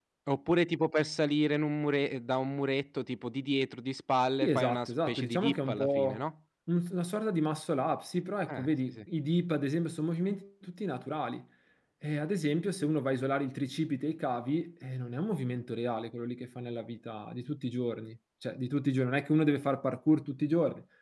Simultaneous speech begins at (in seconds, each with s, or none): 4.4 s